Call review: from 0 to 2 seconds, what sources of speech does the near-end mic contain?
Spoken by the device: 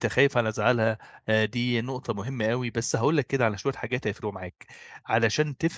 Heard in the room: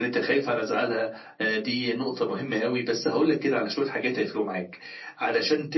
echo only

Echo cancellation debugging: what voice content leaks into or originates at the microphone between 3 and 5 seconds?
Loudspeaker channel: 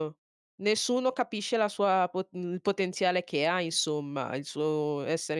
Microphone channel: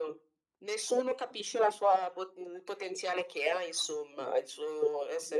echo only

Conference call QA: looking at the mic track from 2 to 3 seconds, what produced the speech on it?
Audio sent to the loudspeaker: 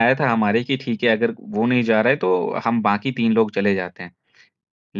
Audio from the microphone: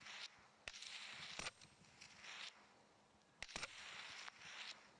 neither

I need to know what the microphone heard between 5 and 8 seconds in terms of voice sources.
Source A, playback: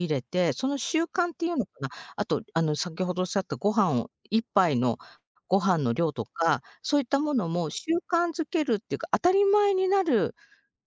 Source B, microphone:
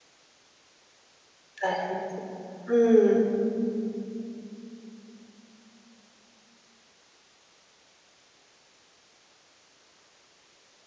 neither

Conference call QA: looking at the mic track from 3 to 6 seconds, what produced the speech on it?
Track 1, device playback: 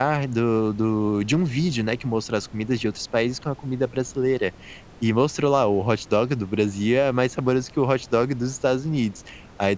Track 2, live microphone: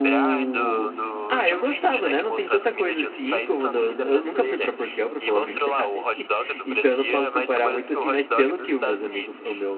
both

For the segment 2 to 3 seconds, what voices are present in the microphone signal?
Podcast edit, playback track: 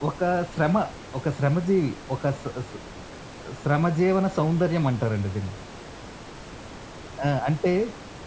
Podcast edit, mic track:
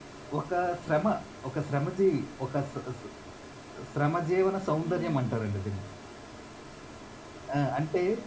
echo only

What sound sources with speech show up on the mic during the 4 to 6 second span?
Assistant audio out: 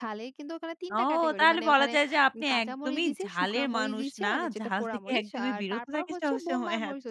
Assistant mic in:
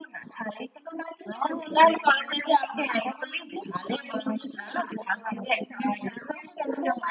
echo only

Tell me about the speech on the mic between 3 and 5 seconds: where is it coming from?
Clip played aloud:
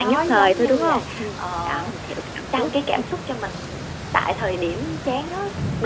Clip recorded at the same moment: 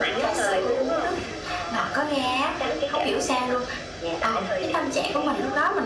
both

